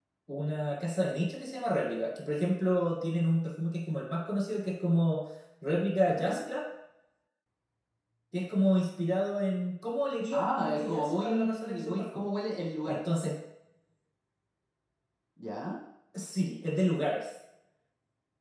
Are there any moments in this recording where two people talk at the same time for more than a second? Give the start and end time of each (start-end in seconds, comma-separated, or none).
10.3-12.3